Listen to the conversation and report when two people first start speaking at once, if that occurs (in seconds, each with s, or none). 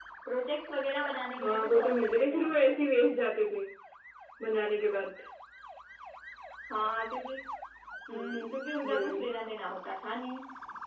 1.4 s